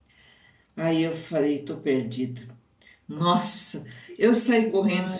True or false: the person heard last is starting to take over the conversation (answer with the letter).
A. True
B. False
B